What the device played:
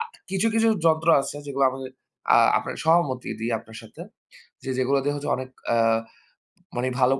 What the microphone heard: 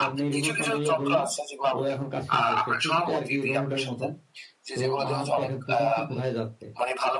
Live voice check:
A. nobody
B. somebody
B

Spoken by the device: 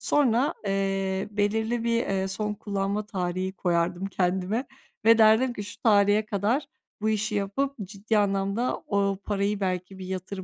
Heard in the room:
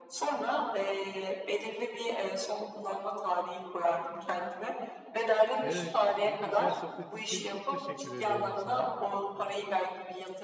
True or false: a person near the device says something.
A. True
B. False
A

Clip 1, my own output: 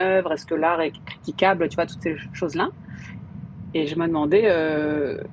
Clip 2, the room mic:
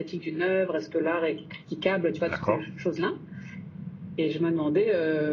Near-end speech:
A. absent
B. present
B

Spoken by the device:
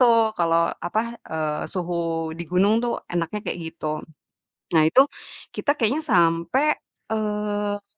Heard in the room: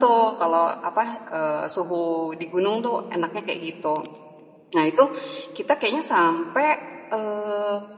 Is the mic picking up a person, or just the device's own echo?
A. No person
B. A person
A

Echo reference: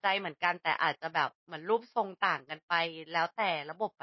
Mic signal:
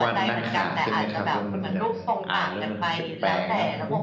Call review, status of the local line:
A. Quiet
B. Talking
B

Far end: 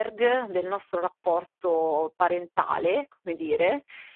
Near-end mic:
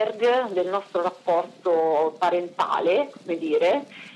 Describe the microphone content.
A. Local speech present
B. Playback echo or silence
B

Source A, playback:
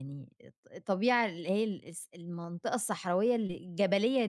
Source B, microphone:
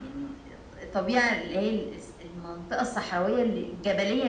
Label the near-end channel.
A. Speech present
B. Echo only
B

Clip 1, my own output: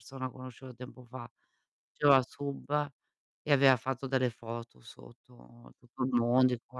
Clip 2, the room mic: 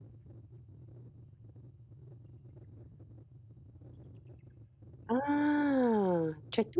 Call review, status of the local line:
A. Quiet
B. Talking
B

